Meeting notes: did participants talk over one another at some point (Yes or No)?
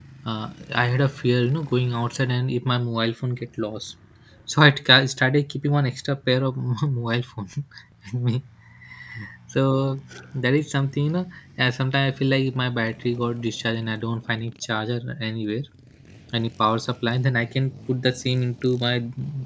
No